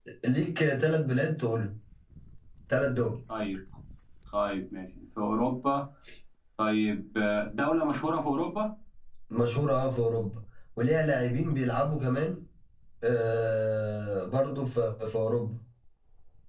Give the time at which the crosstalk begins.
none

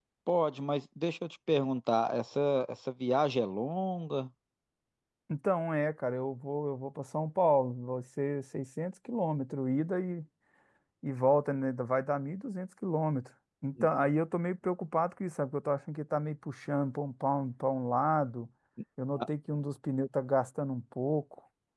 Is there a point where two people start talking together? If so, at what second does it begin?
none

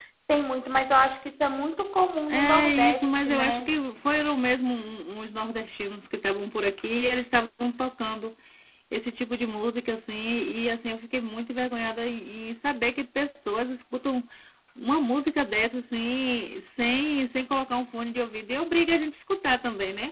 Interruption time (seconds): 2 s

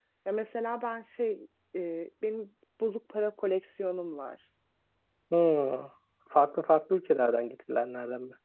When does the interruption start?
none

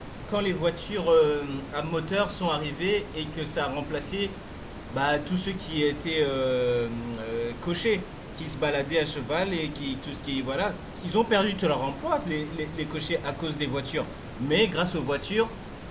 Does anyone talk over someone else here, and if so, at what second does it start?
none

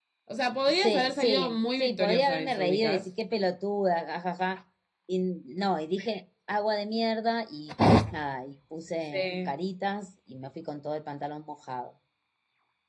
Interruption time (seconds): 1 s

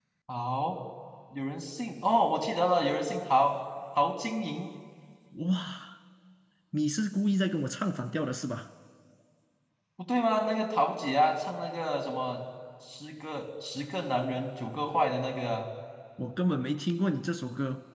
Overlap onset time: none

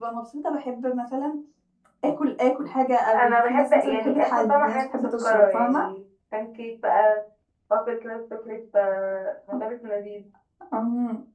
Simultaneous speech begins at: 3 s

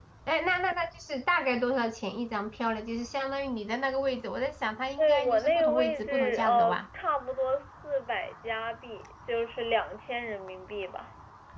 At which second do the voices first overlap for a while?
5 s

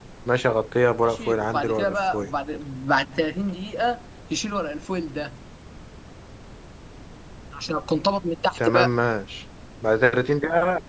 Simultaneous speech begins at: 1 s

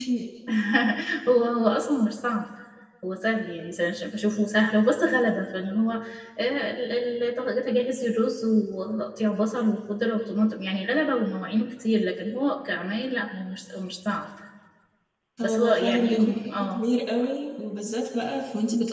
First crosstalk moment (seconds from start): 15 s

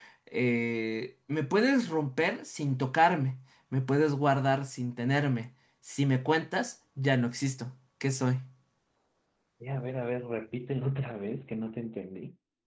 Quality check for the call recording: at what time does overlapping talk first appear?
none

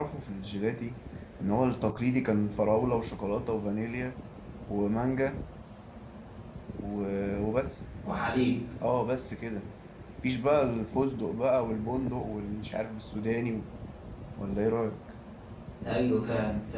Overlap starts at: none

